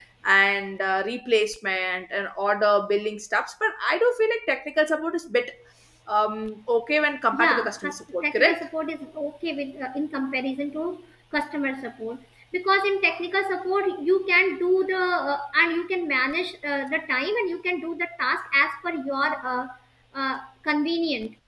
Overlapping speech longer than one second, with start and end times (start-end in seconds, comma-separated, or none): 7.3-8.7